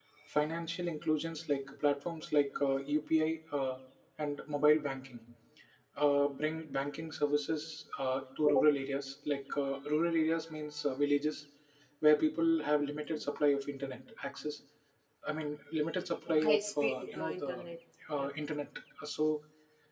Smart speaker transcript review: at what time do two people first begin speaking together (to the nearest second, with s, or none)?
16 s